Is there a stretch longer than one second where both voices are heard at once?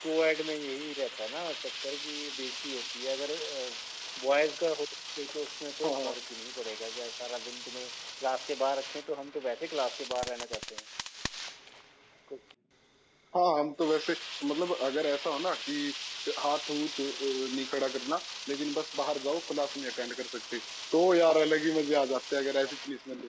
No

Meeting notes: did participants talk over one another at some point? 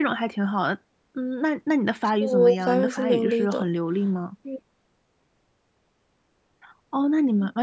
Yes, from 2.2 s

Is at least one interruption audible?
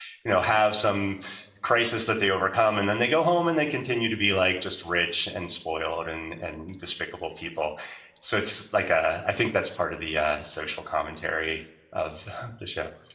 No

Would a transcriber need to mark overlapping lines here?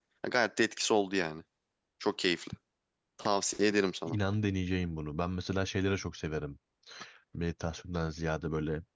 No

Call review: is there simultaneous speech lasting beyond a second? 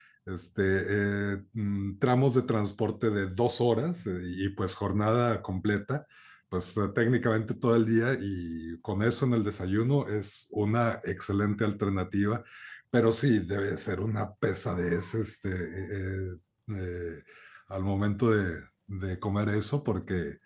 No

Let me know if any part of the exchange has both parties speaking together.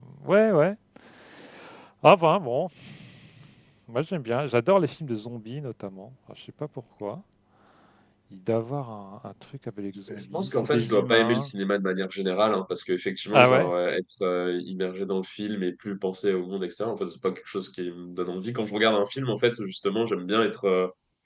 Yes, from 10.1 s

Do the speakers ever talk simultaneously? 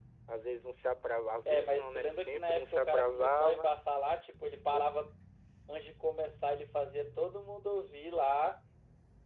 Yes, from 1.4 s

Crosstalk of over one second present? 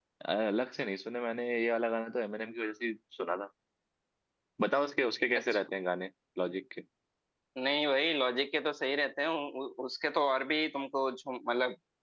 No

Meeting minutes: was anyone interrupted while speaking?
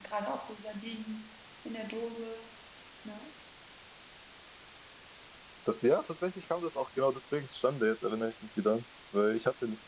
No

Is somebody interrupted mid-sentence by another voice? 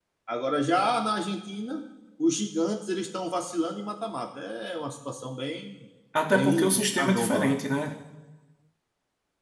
Yes, from 6.3 s

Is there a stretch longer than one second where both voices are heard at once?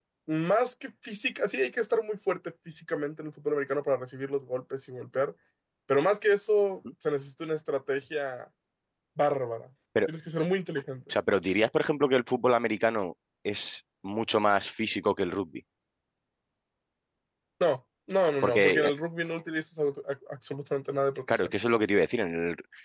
No

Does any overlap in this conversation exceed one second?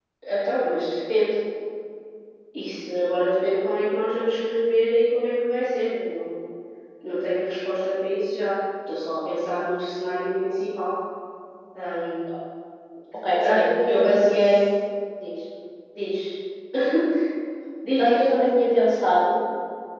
Yes, from 13.4 s

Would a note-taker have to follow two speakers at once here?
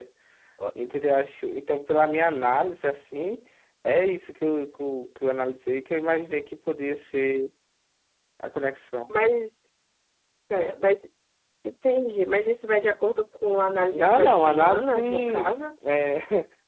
Yes, from 13.9 s

